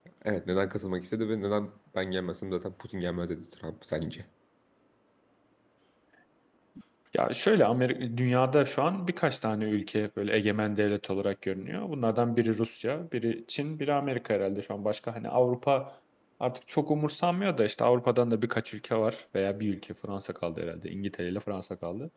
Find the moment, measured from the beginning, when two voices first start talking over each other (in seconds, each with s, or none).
none